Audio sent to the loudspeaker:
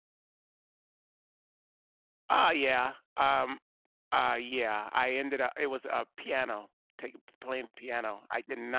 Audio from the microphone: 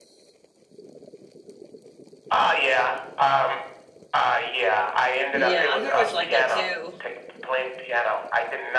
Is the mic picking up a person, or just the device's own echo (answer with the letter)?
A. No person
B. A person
B